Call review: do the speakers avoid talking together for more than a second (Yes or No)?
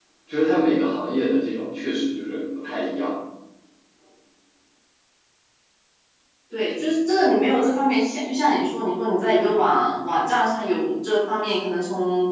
Yes